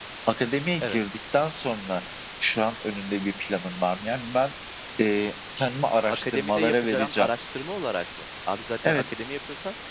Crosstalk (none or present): present